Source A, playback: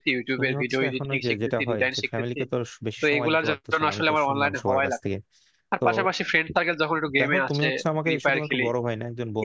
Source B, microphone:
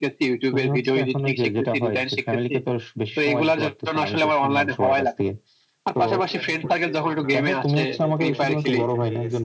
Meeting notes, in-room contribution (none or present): present